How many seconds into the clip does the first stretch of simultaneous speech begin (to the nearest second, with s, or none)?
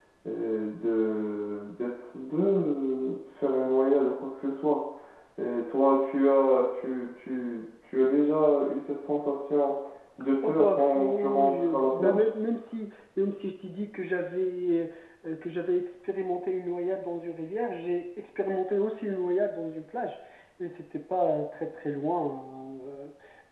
10 s